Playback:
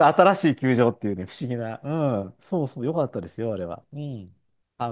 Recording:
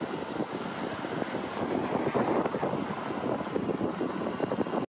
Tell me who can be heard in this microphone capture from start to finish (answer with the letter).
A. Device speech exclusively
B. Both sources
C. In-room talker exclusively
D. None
D